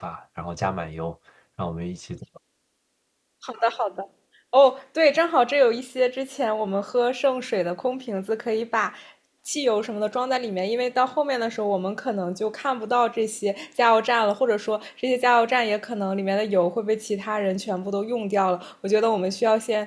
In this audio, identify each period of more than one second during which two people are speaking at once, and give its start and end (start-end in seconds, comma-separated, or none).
none